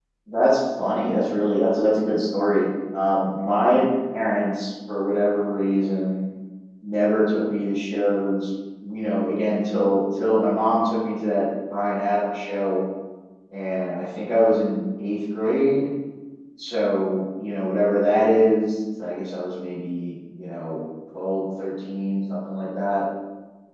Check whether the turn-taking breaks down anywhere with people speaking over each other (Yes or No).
No